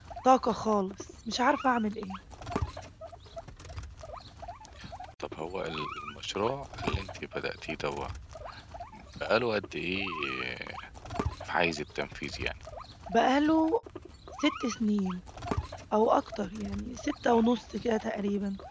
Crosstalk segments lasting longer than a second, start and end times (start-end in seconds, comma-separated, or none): none